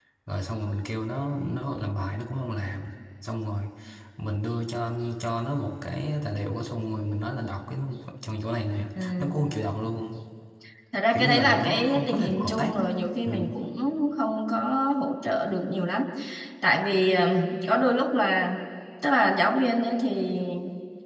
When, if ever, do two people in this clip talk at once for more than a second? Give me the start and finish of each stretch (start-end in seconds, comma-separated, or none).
11.1-12.8